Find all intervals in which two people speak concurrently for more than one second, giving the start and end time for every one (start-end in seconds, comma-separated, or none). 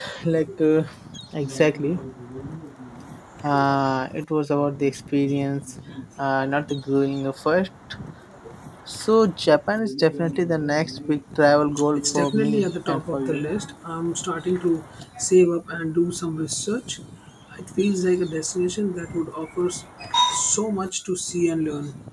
12.0-13.4